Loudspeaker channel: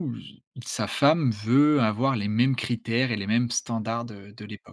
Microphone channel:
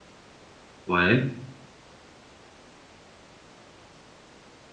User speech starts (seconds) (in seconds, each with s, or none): 0.9 s